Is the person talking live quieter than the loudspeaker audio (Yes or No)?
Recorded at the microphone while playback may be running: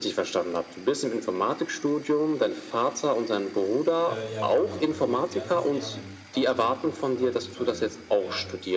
Yes